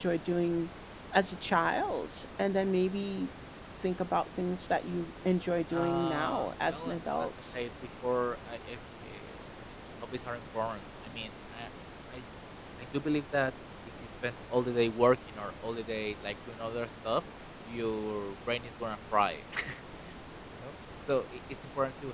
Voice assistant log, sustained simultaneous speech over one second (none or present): present